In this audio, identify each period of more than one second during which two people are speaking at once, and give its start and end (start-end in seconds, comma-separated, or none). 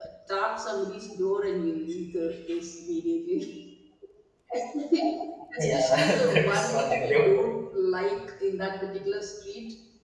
5.6-7.3